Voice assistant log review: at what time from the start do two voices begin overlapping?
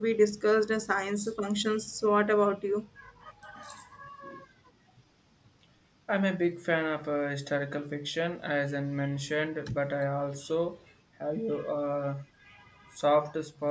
none

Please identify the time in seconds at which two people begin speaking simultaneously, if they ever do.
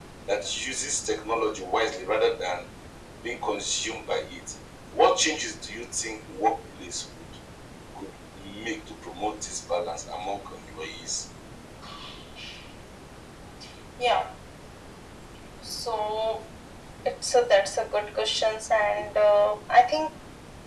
none

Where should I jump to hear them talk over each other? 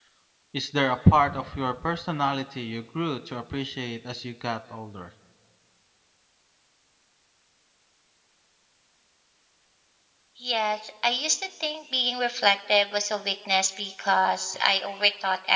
none

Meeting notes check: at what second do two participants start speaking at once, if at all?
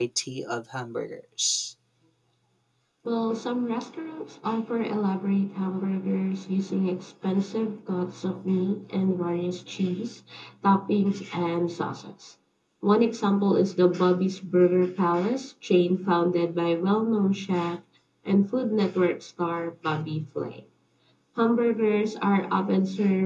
none

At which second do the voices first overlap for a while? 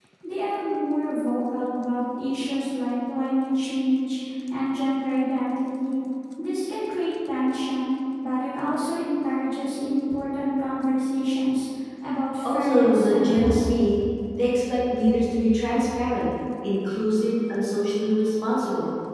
12.4 s

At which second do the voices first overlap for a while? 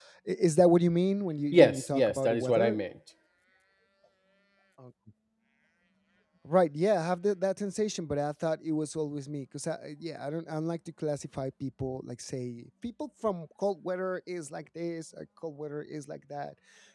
1.5 s

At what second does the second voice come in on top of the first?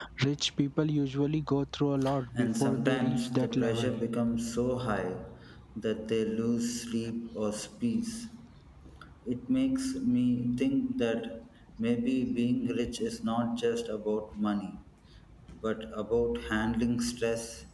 2.4 s

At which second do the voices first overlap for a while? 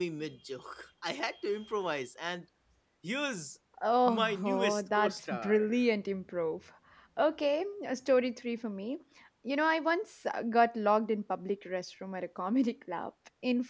4.1 s

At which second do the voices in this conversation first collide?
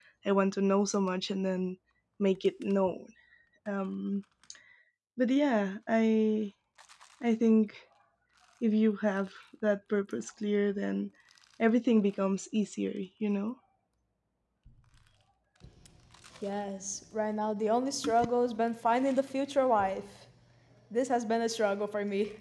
none

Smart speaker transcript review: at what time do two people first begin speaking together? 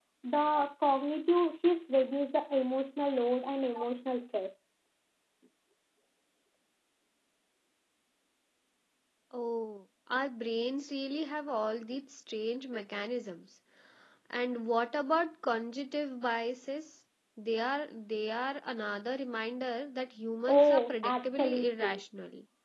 20.5 s

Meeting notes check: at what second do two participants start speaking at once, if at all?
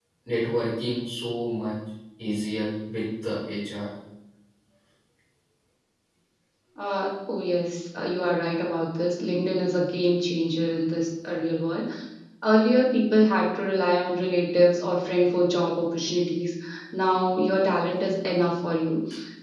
none

